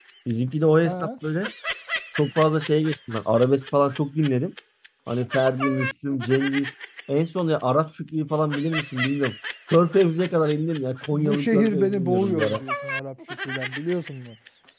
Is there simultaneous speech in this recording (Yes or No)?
Yes